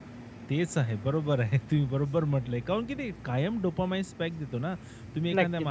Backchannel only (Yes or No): Yes